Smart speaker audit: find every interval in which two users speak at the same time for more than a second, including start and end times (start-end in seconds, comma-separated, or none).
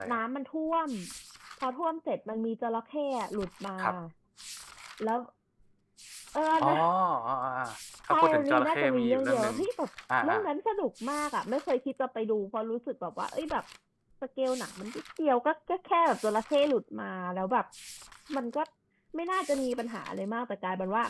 8.1-9.5